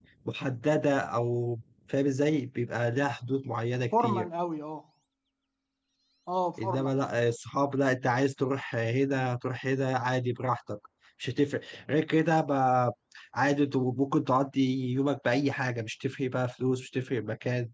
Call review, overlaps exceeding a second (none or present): none